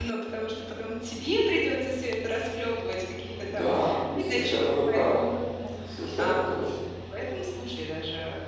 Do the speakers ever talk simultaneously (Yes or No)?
Yes